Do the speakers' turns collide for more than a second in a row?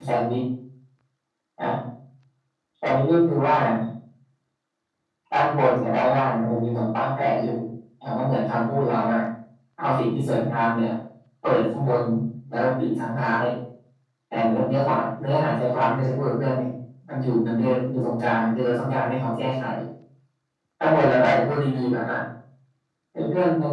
No

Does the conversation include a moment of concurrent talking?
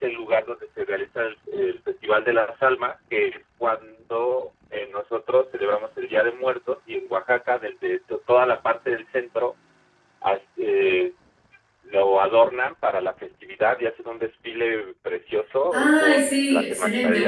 Yes, from 15.7 s

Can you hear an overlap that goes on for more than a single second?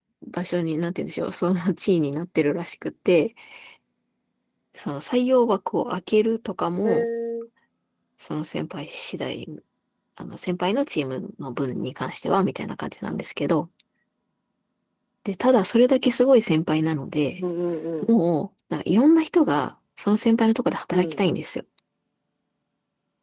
No

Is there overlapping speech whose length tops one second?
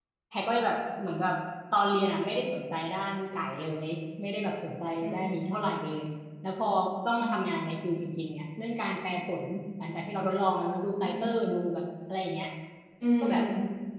No

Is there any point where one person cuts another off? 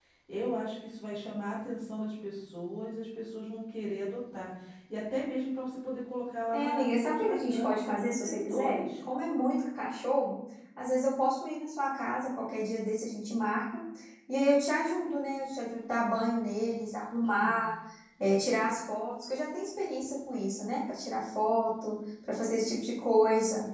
Yes, from 6.5 s

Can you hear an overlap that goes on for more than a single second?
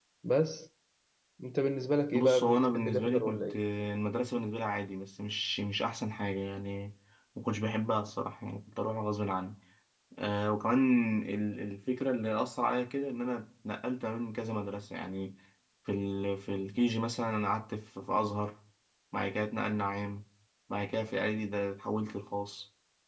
Yes, from 2.1 s

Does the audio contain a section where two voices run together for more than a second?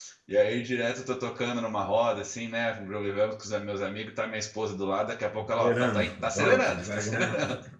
Yes, from 5.4 s

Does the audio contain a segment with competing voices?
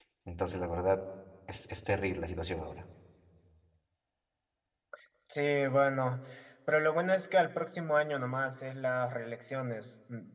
No

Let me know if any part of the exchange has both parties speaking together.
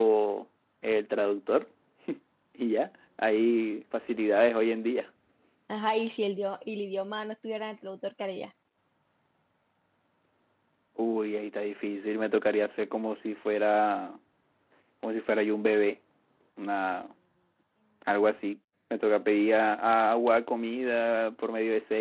No

